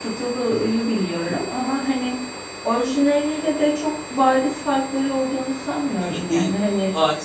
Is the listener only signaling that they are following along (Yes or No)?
No